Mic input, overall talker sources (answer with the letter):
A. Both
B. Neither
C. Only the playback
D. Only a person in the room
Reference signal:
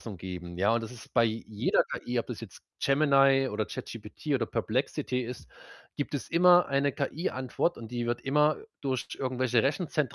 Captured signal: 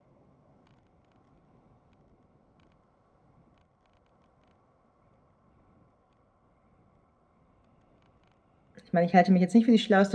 D